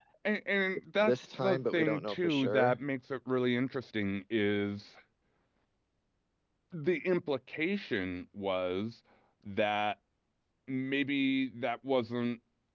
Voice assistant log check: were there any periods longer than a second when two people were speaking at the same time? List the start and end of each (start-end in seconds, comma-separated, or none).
1.0-2.8